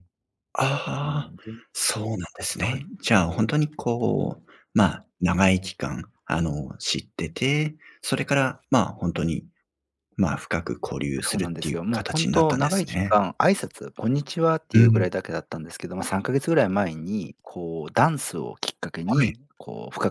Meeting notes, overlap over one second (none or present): present